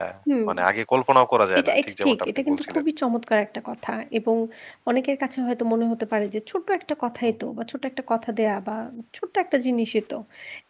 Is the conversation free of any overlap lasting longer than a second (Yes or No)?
No